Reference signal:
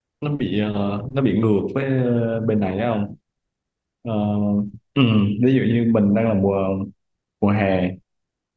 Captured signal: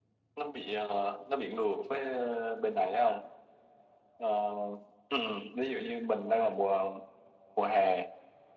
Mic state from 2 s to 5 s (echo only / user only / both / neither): echo only